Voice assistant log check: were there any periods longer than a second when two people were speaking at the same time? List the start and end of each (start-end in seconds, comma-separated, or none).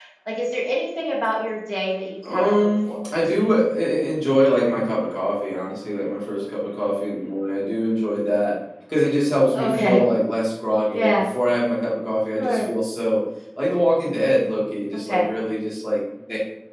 2.2-3.5